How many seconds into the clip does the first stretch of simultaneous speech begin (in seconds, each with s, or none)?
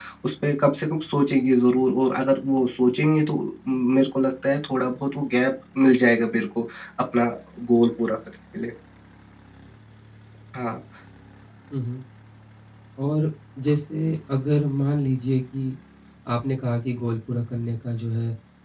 none